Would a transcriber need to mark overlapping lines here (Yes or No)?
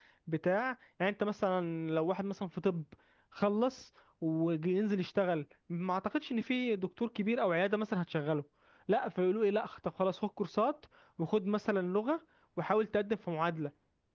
No